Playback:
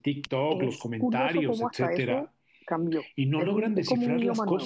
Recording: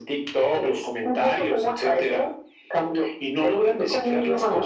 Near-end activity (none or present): none